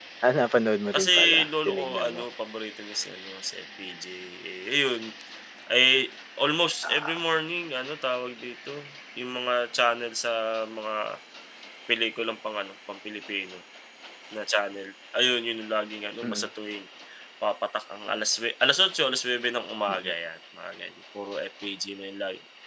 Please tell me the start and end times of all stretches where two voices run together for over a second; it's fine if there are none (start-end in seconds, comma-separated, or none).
0.9-2.2